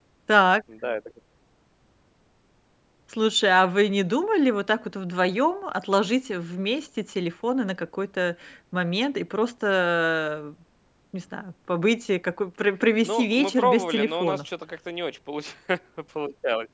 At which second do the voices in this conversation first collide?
13.0 s

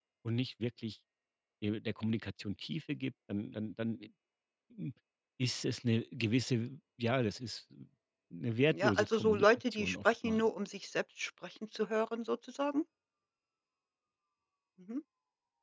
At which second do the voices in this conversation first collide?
8.7 s

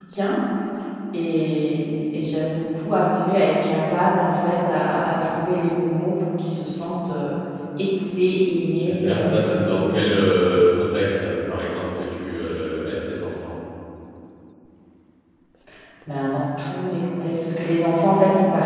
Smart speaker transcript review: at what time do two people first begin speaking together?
8.7 s

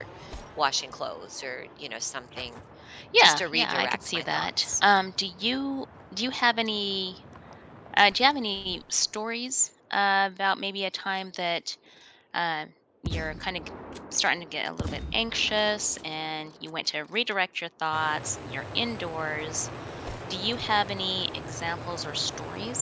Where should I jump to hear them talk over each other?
3.2 s

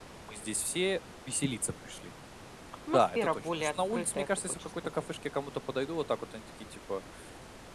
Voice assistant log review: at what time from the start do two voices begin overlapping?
2.9 s

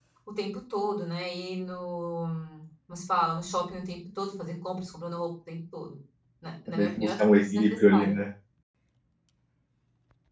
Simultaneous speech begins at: 6.7 s

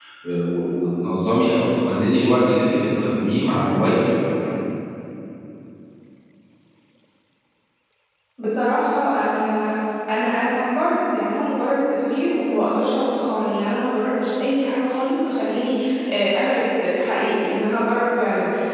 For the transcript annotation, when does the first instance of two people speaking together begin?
none

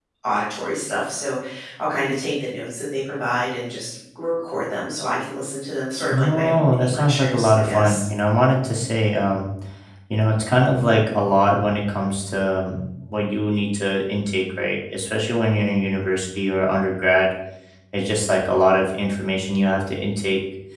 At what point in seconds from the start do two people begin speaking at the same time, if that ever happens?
6.1 s

